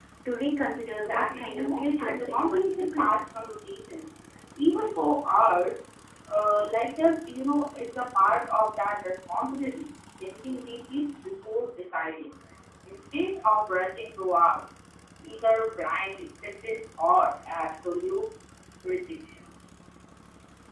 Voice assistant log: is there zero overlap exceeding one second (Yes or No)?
No